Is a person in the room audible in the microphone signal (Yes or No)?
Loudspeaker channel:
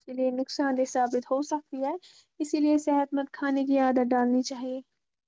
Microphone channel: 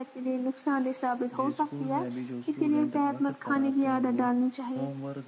Yes